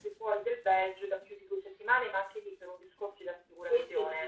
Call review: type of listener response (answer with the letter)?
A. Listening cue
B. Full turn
B